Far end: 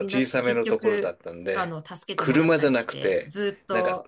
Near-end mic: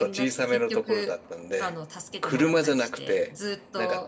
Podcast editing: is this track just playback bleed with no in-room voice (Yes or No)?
Yes